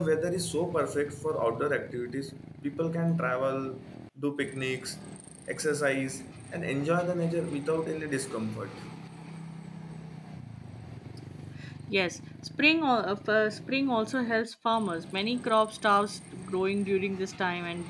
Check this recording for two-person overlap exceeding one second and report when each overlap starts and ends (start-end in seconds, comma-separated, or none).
none